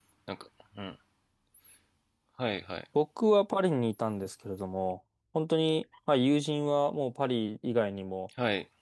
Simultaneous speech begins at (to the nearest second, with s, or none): none